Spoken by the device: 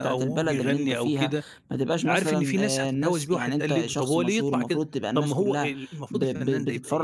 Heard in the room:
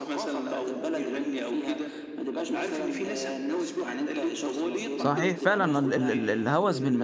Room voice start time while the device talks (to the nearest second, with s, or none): 5 s